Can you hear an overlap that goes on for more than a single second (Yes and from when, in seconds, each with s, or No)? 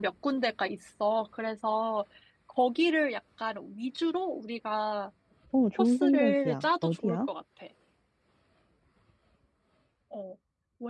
Yes, from 5.8 s